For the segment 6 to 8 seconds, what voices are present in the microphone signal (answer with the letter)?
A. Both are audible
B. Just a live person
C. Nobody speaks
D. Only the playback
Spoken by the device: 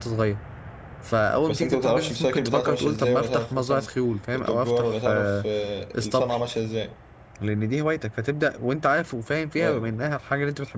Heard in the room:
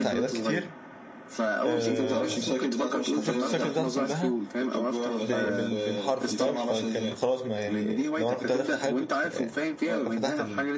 A